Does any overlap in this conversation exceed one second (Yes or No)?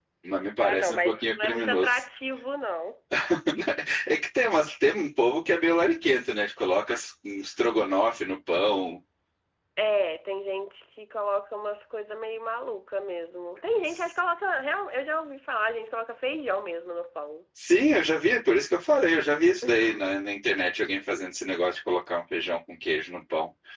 Yes